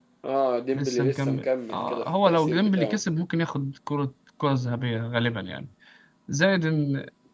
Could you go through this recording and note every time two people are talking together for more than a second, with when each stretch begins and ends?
0.7-3.0

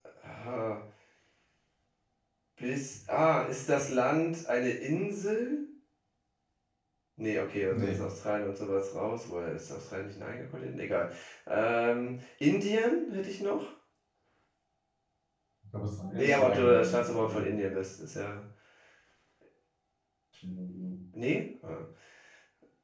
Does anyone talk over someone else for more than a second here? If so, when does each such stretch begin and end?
16.2-17.5

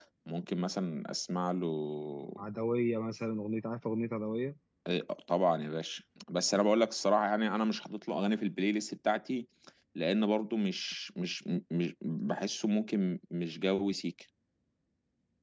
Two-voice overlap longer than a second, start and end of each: none

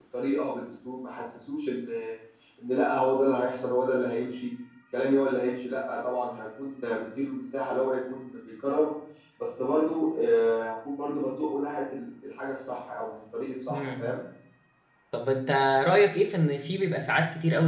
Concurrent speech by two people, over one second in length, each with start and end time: none

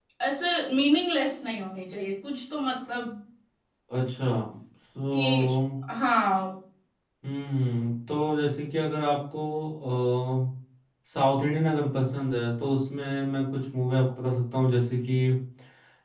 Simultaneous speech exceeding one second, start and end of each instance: none

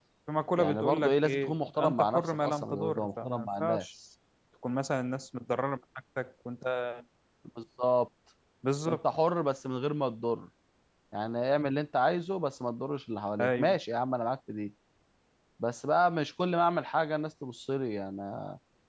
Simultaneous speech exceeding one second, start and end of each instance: 0.6-3.9

